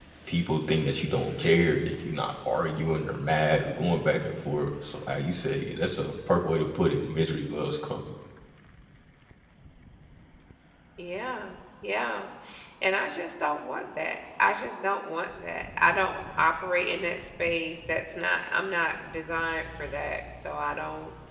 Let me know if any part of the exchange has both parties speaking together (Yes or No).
No